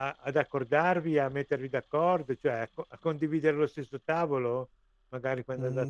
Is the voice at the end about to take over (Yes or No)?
Yes